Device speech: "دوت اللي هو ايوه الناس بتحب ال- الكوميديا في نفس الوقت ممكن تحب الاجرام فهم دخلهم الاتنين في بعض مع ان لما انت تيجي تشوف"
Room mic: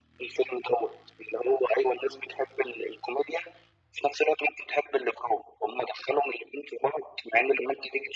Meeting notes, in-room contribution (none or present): none